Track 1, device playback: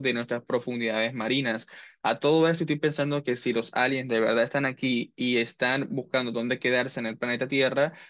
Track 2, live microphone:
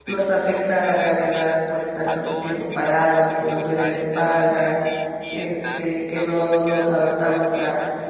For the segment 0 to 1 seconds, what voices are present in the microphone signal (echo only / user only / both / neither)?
both